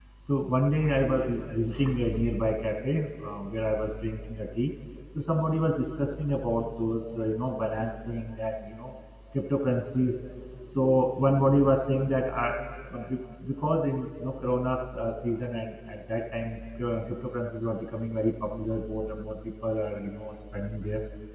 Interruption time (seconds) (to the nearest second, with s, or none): none